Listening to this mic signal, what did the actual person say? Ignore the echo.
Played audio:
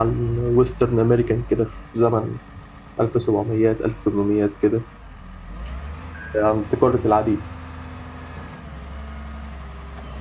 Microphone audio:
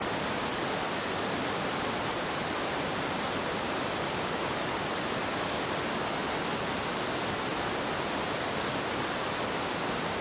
none

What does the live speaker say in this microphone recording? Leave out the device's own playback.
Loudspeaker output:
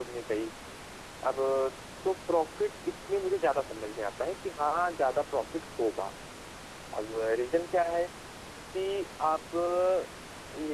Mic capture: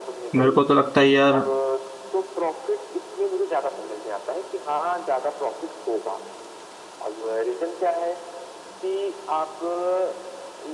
मेरे को तो लगता है यार

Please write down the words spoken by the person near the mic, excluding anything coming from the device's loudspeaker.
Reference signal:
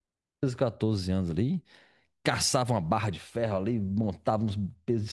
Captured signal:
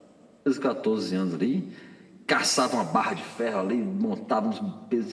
none

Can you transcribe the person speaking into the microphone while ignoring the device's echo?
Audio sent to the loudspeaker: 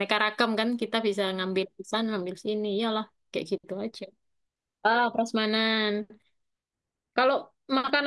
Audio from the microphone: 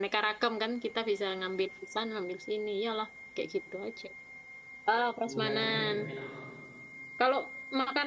bumbu kacang tuh udah enak banget

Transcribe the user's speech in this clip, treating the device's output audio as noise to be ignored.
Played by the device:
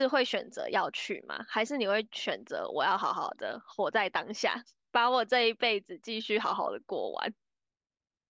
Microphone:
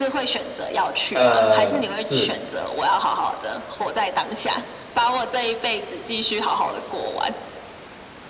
呃是，

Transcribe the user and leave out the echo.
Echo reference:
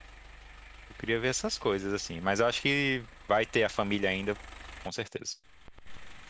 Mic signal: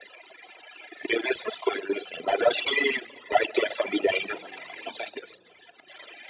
none

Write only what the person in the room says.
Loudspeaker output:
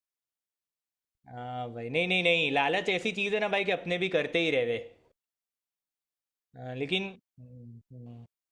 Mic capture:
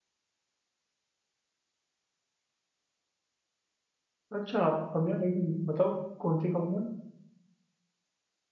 अच्छा आपको कमियाँ लगी बताओ कौन सी कमियाँ

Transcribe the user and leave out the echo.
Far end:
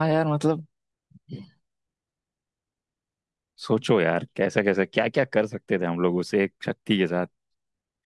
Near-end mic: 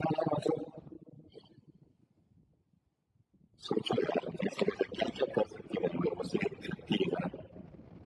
none

